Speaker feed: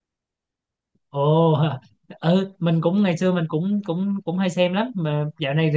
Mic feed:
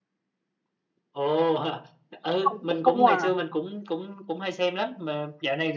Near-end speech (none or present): present